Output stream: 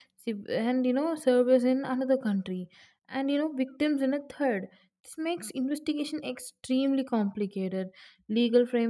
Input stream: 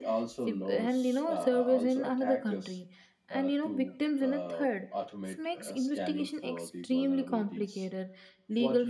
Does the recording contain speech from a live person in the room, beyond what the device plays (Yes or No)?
Yes